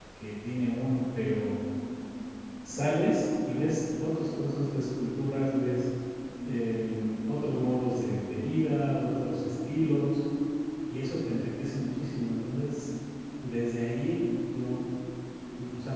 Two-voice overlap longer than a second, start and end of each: none

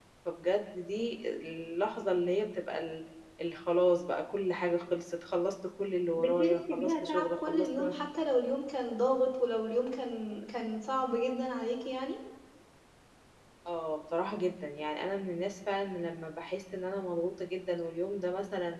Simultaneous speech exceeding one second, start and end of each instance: 6.2-7.9

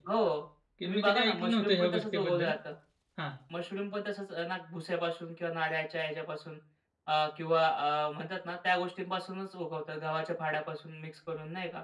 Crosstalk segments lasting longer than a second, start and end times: 0.8-2.5

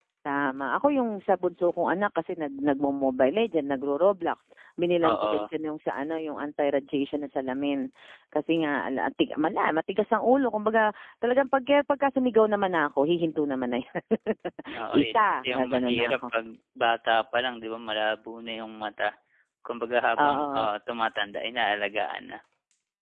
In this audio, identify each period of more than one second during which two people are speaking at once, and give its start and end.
14.9-16.3

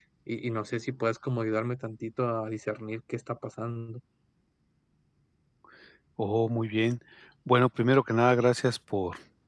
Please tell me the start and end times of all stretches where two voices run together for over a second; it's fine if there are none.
none

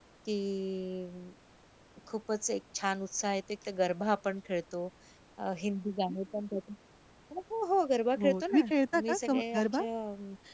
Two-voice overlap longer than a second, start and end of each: 8.2-9.8

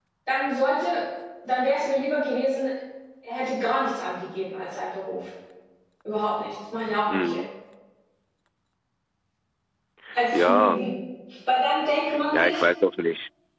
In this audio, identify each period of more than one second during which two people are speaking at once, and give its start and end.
none

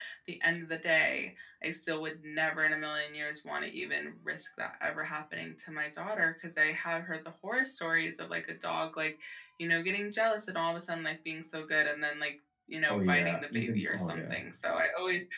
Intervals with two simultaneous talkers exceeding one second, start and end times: 12.9-14.4

